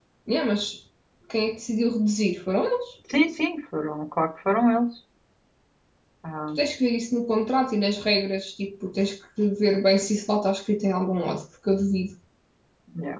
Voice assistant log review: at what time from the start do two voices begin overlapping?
none

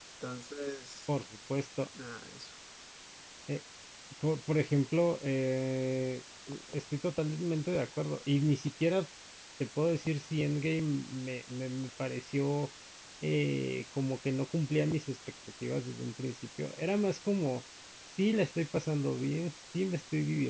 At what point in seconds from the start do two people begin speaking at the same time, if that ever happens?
none

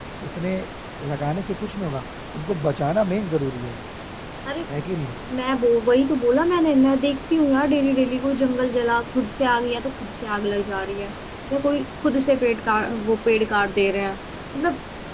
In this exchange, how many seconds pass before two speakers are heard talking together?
none

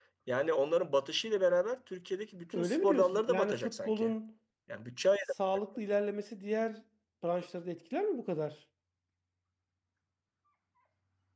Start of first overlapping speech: 2.5 s

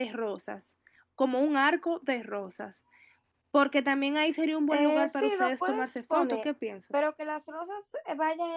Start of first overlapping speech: 4.7 s

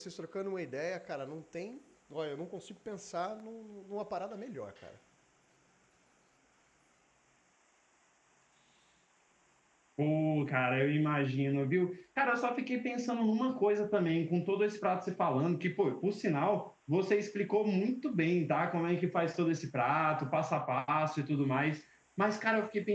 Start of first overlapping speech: none

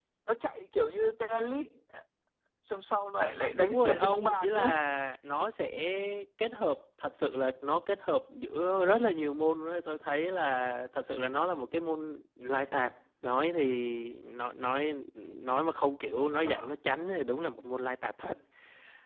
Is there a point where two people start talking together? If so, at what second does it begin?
3.6 s

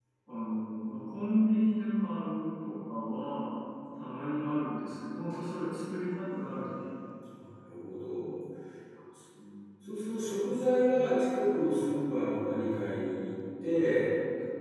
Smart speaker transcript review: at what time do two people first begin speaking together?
none

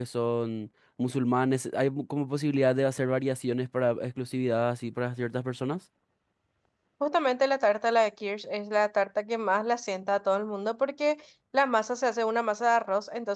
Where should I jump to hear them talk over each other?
none

